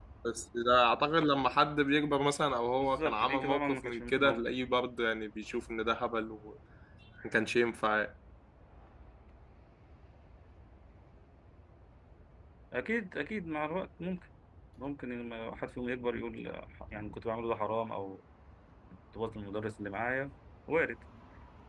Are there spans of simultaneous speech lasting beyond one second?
Yes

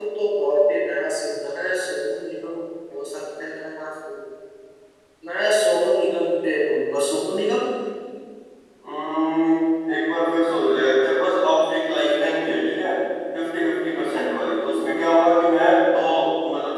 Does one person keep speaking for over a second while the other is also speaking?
No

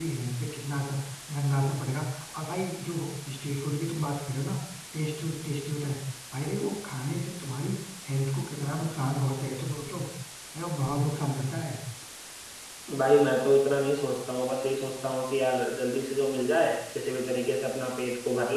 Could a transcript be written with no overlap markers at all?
Yes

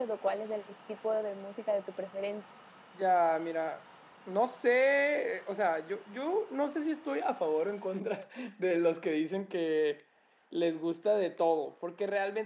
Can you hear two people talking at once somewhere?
No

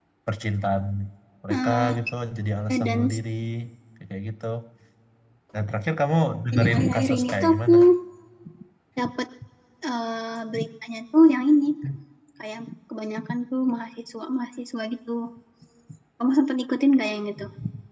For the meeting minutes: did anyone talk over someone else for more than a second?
Yes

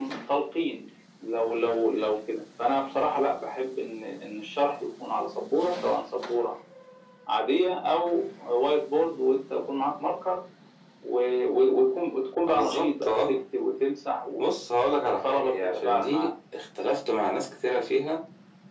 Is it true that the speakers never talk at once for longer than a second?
No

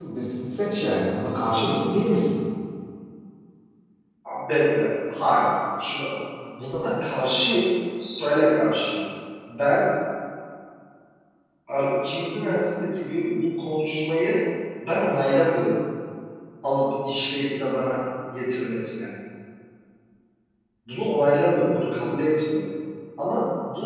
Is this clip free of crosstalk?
Yes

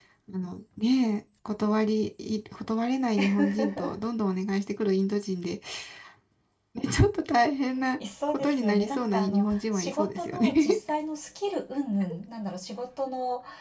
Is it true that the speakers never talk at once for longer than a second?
No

